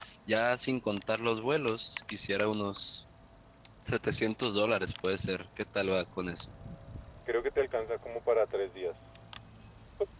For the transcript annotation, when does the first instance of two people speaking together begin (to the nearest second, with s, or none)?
none